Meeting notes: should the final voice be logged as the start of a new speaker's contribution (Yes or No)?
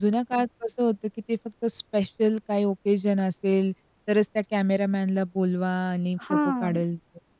No